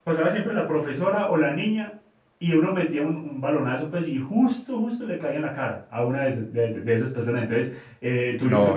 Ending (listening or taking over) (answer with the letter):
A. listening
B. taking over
A